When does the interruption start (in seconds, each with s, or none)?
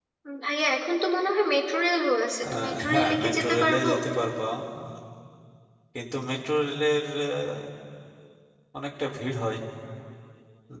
2.4 s